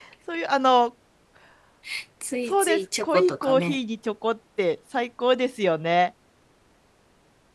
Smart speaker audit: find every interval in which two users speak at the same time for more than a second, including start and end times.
2.5-3.8

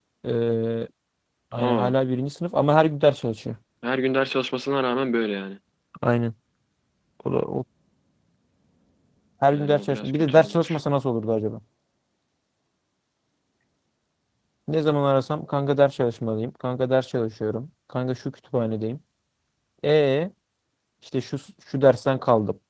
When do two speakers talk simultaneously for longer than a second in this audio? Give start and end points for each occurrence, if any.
9.5-10.8

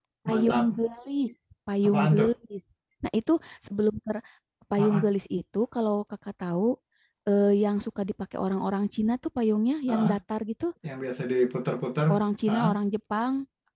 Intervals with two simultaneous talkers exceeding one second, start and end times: none

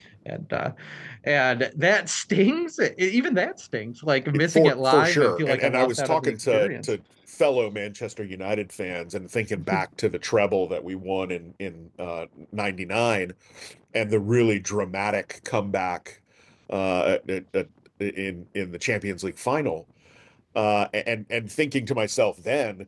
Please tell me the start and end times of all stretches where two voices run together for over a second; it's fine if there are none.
4.3-6.9

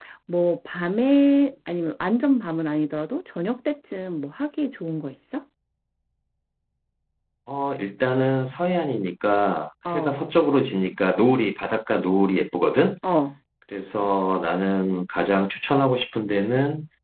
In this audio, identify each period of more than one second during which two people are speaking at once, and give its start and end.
none

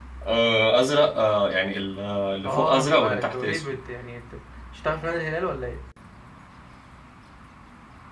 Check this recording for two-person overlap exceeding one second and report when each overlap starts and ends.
2.5-3.8

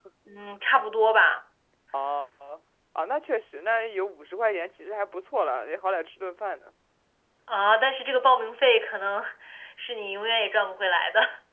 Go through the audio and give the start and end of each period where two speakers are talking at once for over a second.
none

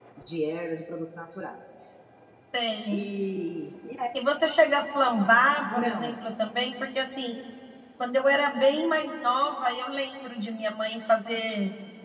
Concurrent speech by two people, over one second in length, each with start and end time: none

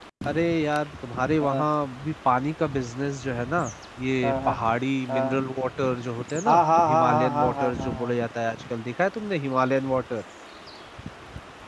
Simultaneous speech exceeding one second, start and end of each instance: 6.5-8.2

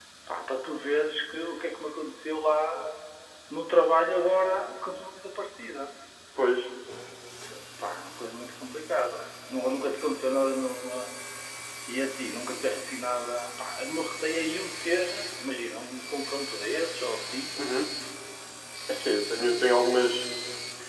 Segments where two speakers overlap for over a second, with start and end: none

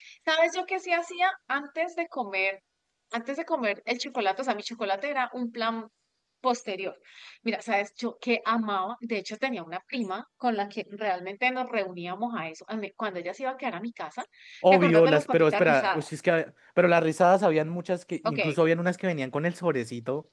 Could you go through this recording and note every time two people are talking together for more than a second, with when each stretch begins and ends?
14.7-16.1

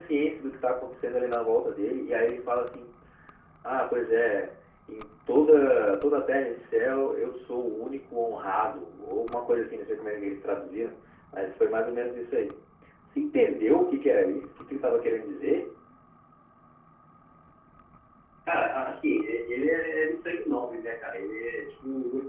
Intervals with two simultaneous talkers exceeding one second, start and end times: none

